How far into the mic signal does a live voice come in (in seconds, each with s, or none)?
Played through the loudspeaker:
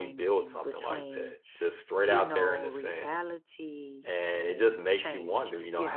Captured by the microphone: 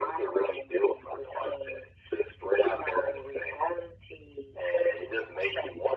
none